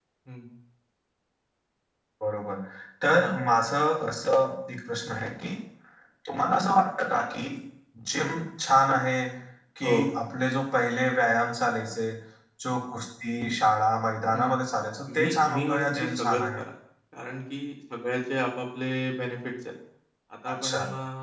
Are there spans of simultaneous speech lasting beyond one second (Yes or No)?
Yes